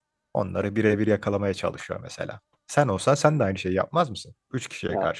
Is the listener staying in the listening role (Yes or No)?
No